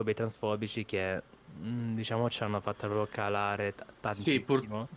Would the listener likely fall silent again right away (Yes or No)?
No